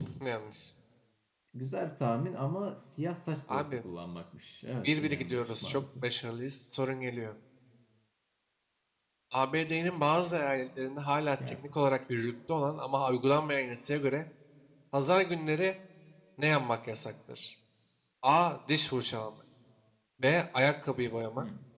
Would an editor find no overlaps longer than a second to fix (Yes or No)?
No